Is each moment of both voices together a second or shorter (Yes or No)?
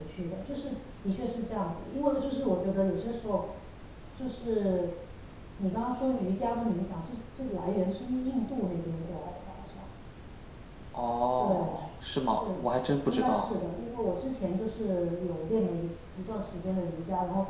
Yes